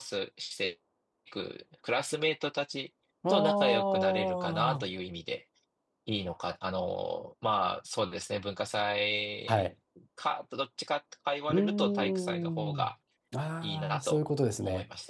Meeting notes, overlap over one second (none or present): present